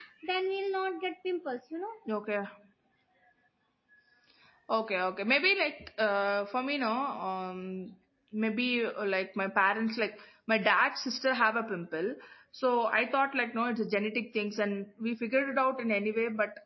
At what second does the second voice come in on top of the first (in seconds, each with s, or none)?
none